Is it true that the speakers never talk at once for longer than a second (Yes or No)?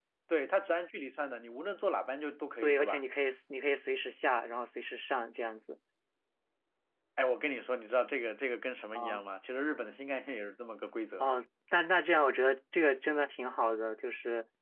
Yes